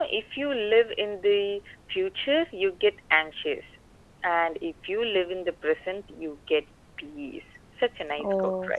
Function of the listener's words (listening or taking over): taking over